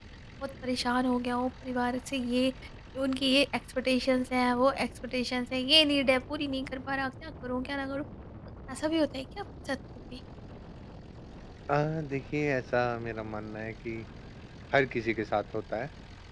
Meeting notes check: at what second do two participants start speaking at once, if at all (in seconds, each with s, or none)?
none